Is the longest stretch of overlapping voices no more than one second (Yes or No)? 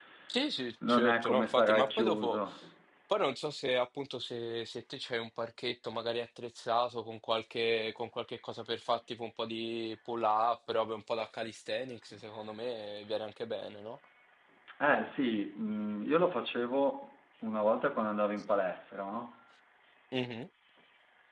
No